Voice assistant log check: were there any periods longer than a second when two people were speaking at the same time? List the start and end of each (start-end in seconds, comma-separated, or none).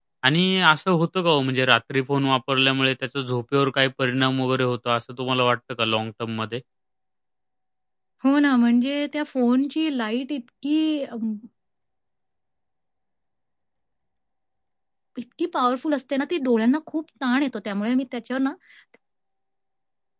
none